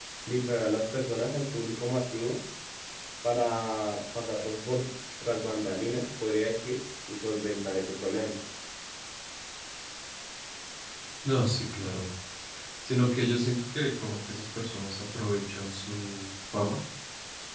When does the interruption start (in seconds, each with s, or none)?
none